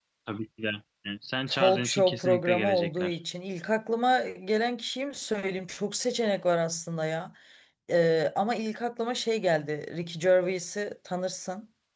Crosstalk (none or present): present